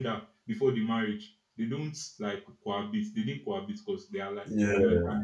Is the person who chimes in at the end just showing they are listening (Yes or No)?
Yes